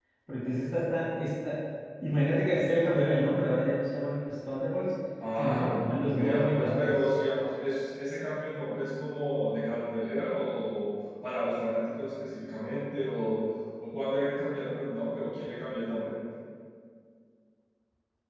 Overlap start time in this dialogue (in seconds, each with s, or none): 5.2 s